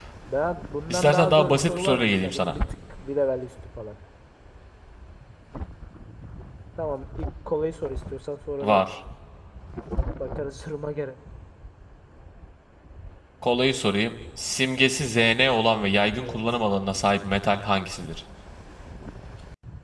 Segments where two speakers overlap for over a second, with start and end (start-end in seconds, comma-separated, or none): 0.9-2.6